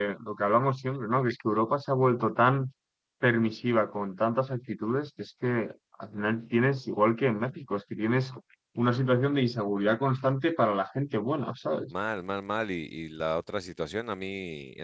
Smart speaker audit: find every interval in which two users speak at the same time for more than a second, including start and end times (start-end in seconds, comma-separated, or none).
none